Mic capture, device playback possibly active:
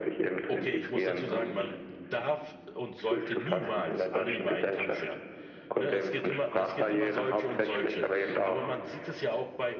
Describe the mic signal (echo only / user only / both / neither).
both